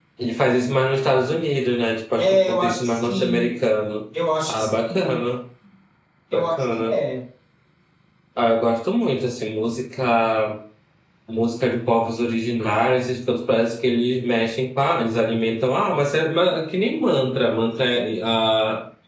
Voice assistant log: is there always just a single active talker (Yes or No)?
No